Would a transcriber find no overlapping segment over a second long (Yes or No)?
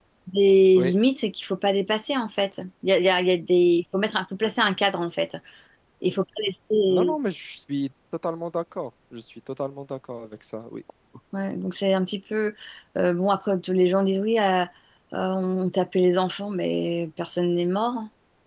Yes